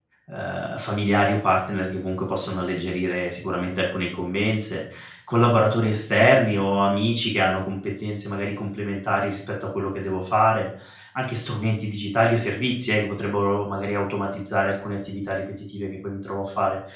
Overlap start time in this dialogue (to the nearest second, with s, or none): none